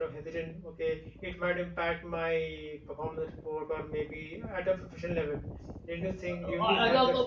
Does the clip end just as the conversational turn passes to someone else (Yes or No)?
Yes